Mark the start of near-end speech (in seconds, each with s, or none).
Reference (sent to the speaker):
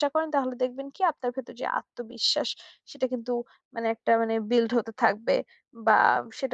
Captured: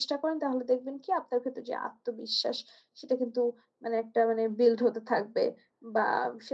none